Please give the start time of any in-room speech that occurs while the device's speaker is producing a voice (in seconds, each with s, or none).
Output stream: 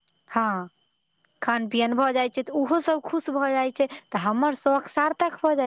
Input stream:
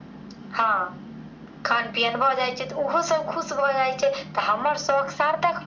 none